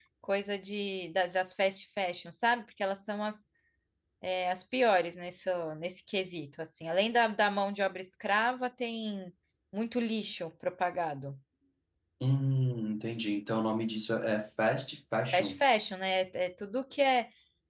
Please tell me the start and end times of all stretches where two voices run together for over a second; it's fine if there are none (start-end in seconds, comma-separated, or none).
none